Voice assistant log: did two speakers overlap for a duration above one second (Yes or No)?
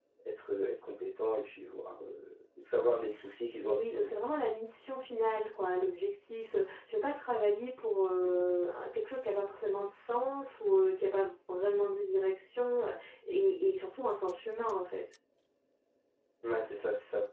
No